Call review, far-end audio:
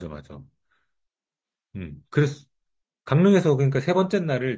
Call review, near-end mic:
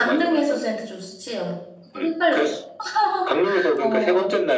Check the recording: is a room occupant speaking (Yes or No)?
Yes